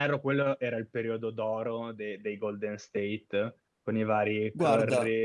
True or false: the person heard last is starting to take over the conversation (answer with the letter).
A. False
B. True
A